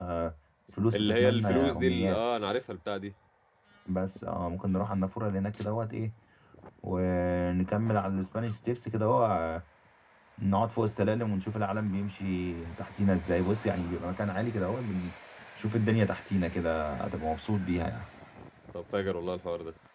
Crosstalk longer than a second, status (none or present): present